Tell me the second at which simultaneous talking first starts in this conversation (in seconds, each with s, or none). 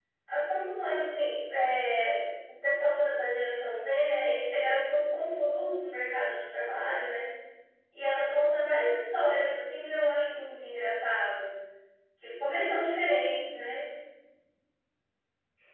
none